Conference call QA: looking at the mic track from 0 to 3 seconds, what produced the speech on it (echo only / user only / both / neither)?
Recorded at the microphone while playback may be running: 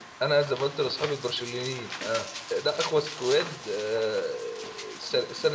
user only